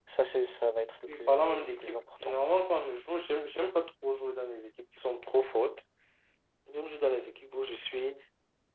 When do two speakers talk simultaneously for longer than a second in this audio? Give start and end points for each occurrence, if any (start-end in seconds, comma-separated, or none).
1.1-2.4